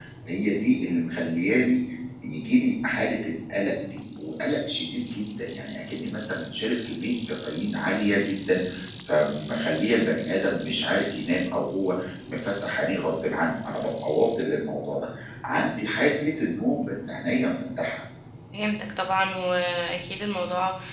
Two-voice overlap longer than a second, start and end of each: none

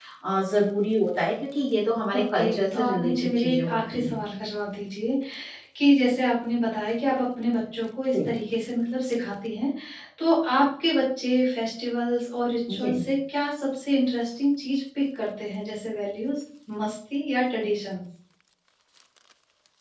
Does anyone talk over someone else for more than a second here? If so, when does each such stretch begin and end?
2.1-4.2

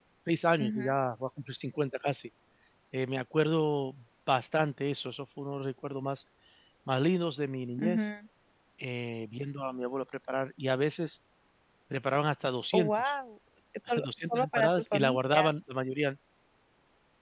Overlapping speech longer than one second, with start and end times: 14.0-15.5

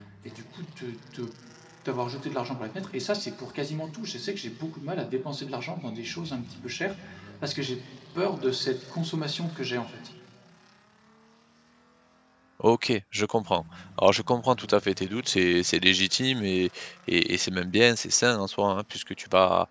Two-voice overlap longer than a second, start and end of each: none

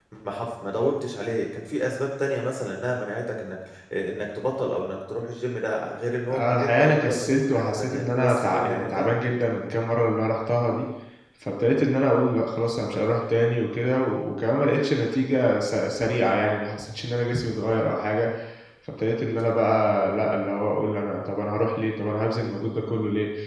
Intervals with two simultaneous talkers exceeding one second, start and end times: 6.3-9.1

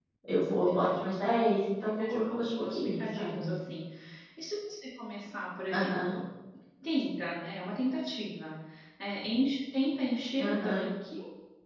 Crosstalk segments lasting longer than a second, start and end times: 1.8-3.6

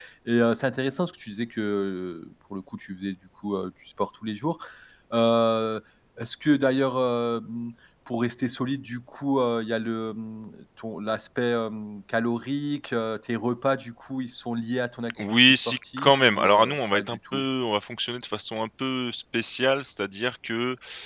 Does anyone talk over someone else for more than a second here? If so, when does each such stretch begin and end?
15.2-17.4

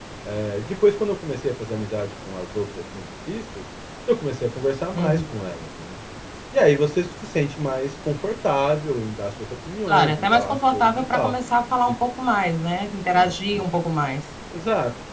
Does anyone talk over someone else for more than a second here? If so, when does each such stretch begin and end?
9.9-11.3

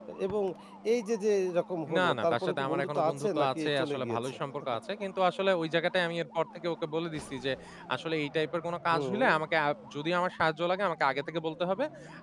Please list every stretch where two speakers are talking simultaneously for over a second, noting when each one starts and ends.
2.0-4.4

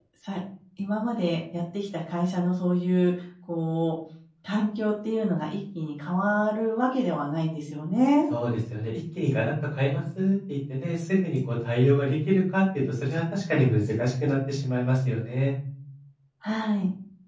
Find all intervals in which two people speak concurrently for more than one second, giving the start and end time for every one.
none

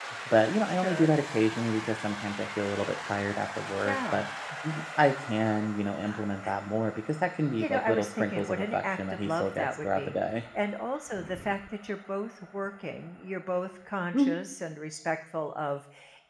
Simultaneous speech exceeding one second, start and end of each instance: 7.6-10.1

